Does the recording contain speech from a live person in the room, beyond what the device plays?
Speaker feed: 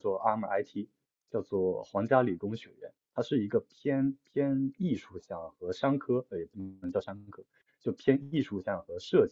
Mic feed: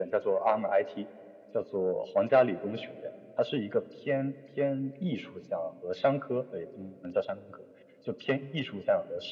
No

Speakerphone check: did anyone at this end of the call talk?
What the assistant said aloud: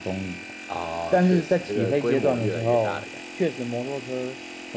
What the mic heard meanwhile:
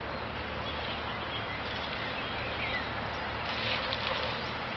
No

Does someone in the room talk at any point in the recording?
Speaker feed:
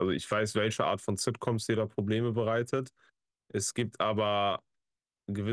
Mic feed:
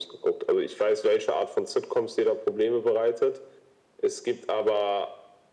No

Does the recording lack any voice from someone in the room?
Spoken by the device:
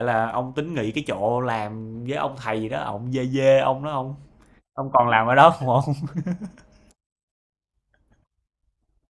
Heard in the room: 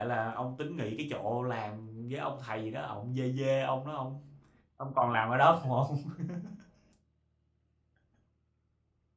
Yes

